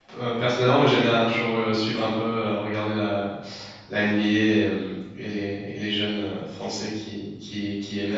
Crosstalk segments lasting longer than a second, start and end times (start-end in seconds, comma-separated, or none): none